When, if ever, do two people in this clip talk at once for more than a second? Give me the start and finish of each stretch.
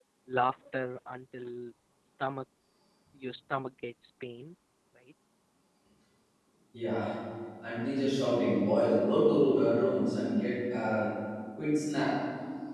none

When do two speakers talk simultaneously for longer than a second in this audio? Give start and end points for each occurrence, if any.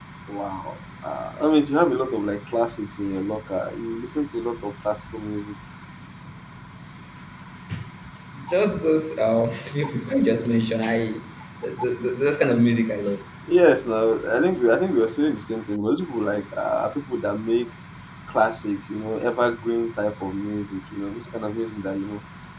none

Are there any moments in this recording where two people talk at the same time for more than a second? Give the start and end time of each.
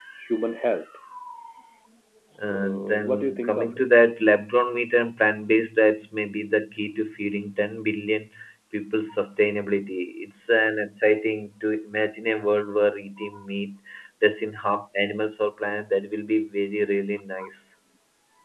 2.4-3.9

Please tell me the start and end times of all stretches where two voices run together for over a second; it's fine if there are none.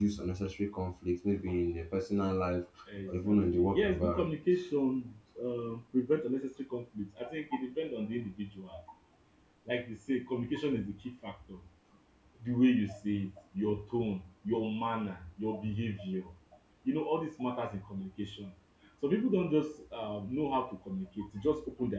3.1-4.3

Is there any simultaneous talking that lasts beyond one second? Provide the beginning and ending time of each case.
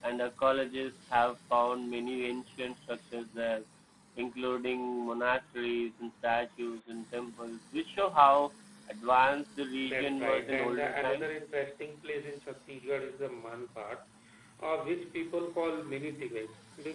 9.8-11.3

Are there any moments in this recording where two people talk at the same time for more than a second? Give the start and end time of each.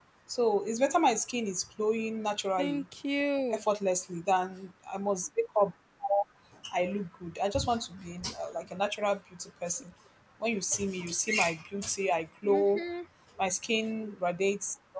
none

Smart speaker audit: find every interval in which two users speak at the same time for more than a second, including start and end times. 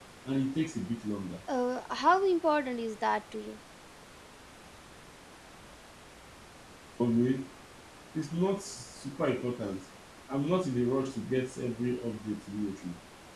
none

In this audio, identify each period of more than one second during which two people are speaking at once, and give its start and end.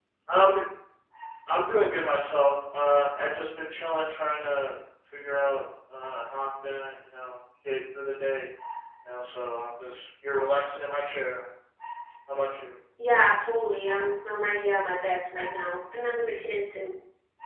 none

